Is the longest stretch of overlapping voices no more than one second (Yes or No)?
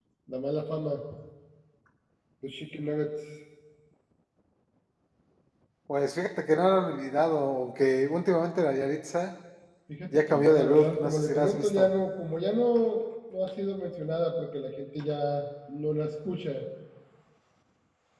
No